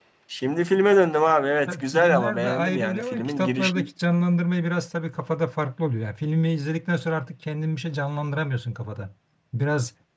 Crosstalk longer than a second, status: present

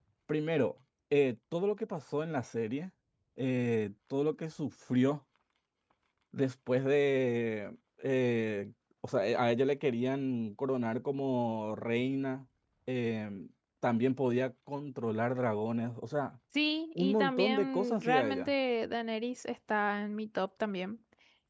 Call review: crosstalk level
present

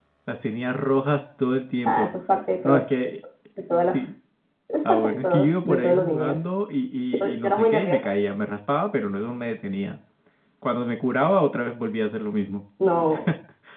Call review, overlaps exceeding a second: present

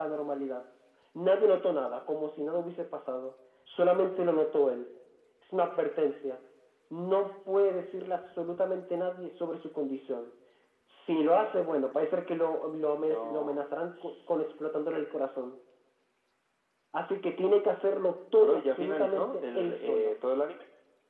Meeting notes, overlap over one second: present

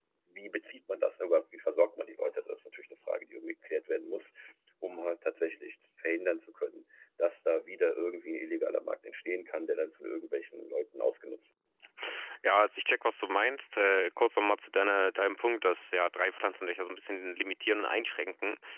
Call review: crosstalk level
none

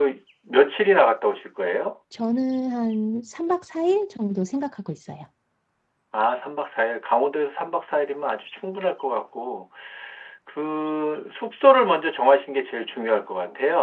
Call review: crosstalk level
none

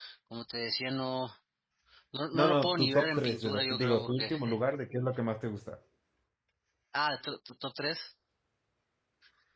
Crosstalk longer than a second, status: present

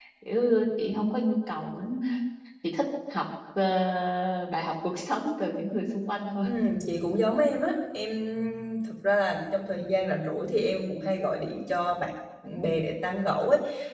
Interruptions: none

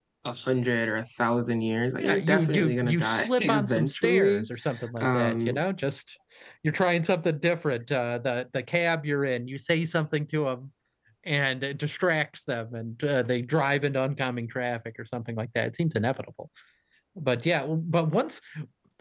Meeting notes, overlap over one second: present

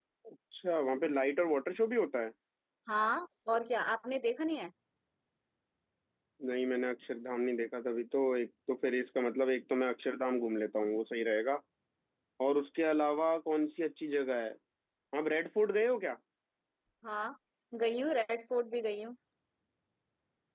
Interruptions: none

